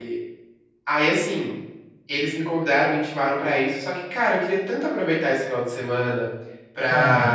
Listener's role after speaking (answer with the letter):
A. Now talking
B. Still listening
B